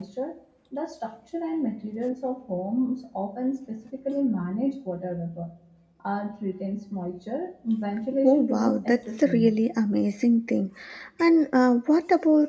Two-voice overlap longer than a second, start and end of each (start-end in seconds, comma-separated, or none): 8.2-9.5